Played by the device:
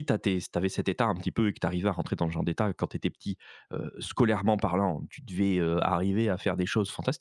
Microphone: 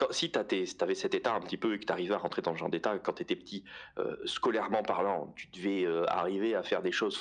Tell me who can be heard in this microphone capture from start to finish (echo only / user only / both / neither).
echo only